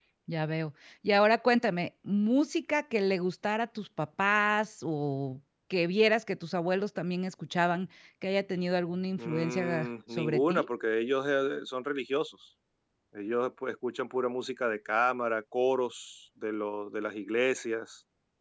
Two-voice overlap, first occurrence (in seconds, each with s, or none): 9.2 s